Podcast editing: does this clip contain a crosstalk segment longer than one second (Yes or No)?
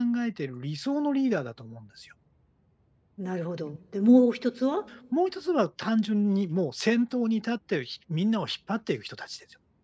No